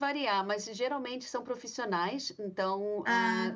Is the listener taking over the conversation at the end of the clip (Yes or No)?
No